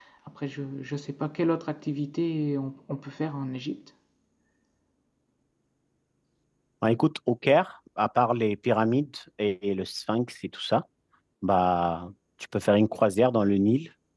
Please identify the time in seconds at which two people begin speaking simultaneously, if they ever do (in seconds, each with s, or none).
none